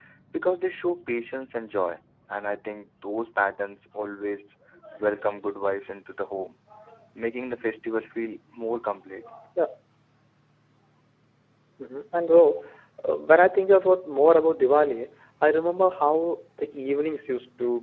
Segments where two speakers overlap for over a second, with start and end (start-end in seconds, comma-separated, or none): none